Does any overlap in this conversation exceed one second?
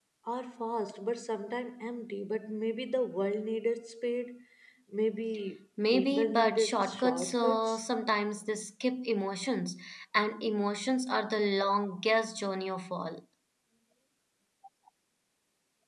Yes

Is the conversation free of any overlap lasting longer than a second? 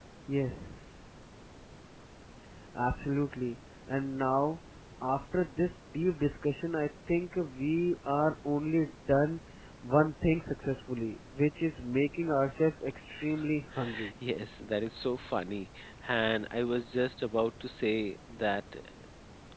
Yes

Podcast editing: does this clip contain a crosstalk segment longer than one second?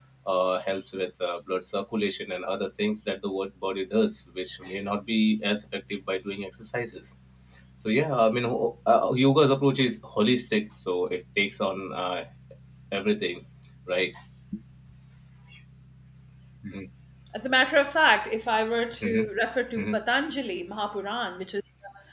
No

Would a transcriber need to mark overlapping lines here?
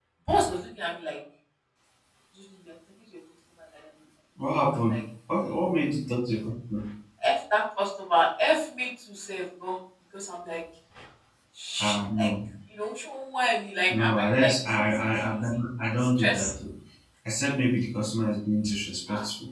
Yes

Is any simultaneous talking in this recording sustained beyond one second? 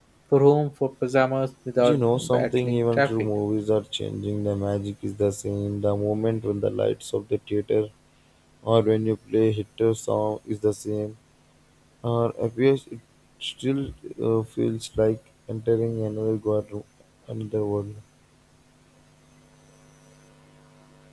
Yes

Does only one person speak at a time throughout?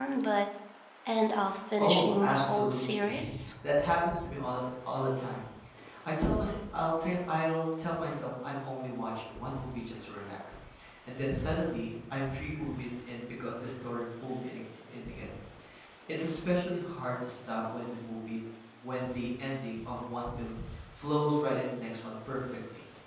No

